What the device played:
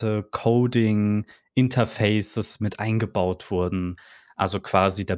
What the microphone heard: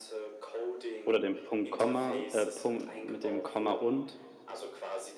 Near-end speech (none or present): present